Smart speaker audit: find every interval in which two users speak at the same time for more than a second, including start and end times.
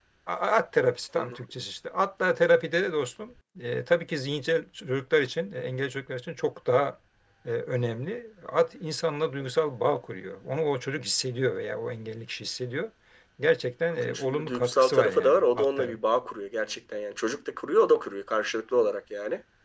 14.0-16.0

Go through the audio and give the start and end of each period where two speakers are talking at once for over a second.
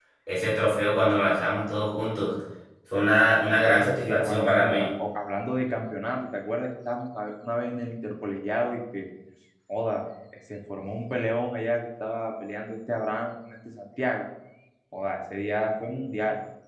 3.6-4.9

